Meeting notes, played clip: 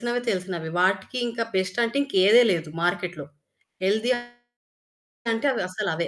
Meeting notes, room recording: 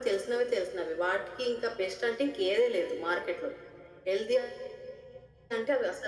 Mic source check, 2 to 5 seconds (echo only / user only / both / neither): echo only